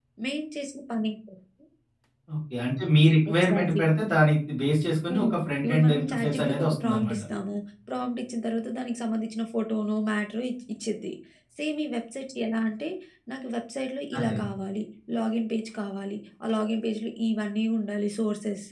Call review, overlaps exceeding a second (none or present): present